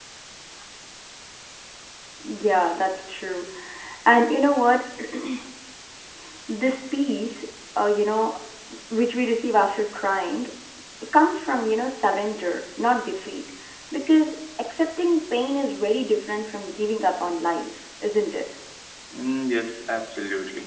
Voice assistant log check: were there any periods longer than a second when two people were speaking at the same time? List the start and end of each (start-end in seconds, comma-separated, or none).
none